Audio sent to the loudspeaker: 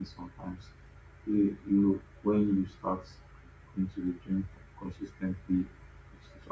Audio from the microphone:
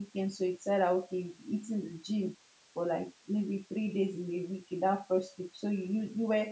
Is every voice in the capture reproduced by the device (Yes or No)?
No